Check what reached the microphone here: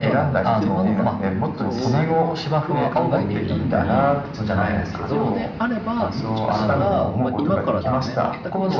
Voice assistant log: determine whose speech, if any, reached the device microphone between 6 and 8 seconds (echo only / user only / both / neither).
both